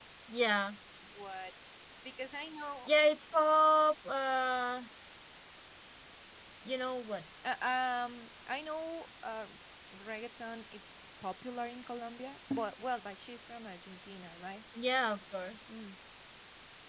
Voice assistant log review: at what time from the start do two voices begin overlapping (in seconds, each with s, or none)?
none